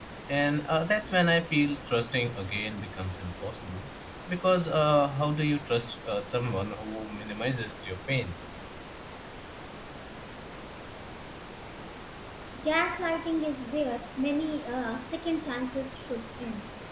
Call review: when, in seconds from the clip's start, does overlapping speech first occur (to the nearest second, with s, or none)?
none